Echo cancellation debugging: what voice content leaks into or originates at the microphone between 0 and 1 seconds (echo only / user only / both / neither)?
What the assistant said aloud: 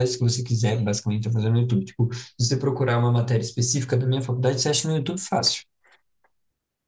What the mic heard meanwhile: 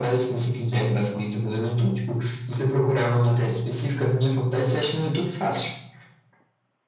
echo only